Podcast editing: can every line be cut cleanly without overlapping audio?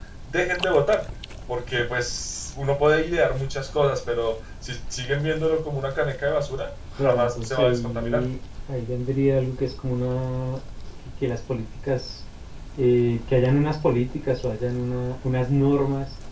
No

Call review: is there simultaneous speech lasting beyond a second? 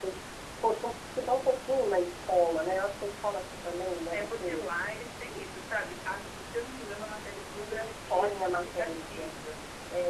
Yes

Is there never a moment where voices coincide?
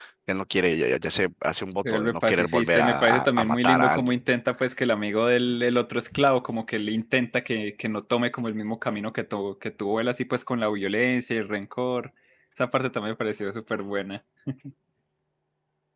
No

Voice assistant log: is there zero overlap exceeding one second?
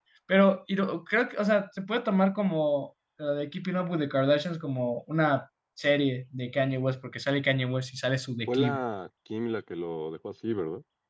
Yes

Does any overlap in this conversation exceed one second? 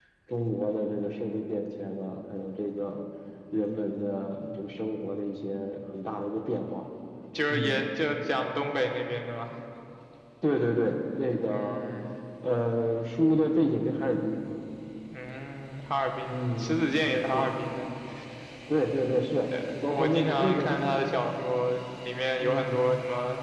Yes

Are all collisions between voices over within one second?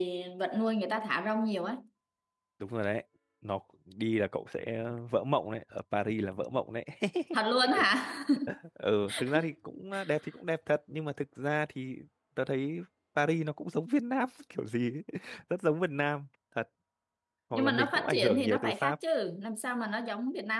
No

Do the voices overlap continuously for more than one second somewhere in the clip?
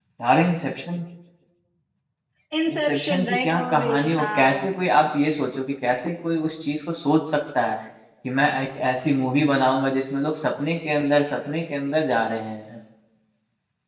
Yes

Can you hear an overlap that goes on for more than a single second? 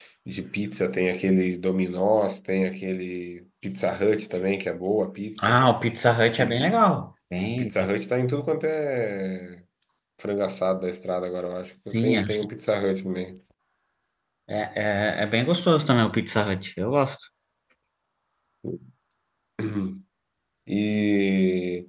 No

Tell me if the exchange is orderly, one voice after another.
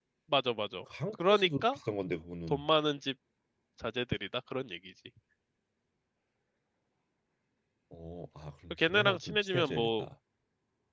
No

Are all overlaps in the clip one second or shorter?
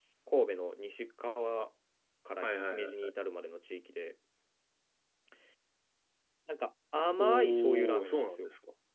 No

